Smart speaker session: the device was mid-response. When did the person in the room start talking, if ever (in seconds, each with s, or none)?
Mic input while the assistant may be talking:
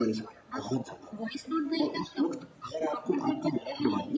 none